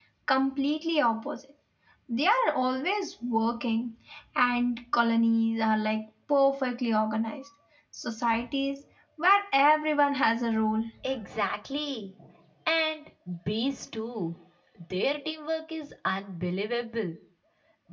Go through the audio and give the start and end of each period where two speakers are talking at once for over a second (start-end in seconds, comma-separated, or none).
none